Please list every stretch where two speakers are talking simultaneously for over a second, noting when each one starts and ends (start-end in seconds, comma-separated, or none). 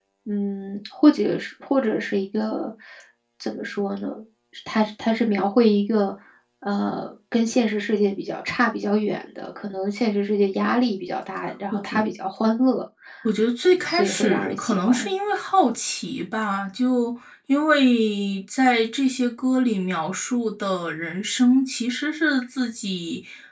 13.9-15.1